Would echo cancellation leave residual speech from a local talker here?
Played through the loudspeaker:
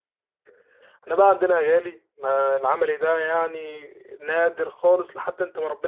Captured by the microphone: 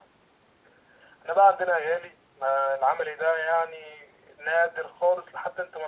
No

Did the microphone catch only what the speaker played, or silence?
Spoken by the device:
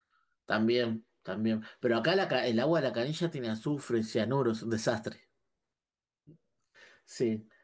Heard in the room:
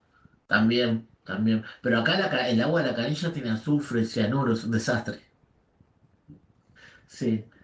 Yes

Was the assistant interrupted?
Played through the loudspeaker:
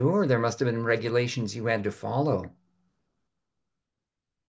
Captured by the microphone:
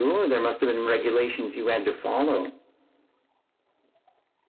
No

